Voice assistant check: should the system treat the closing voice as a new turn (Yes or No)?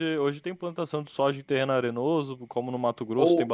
Yes